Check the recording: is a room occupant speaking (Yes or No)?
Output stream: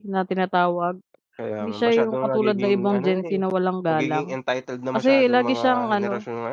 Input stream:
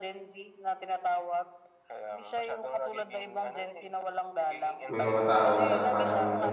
Yes